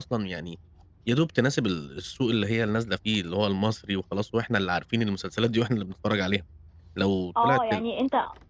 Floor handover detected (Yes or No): Yes